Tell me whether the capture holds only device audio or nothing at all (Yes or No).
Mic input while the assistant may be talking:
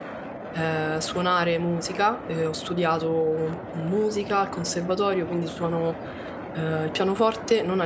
No